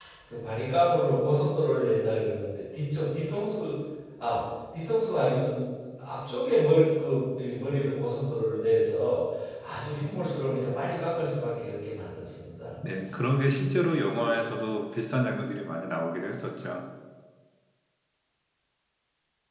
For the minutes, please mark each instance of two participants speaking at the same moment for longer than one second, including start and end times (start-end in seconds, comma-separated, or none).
none